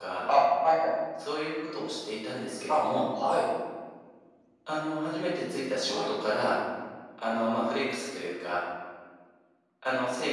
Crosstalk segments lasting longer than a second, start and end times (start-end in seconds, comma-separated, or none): none